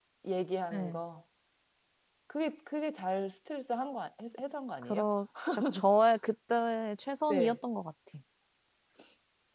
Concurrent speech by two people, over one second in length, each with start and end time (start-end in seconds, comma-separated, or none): none